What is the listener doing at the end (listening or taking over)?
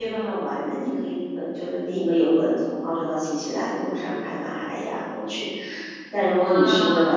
listening